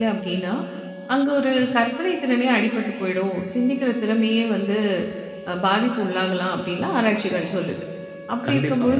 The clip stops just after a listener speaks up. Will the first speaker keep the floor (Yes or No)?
Yes